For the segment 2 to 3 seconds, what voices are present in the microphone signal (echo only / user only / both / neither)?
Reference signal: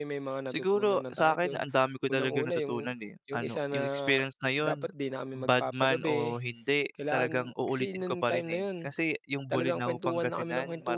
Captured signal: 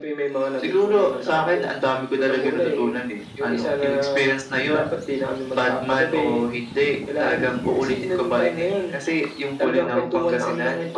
echo only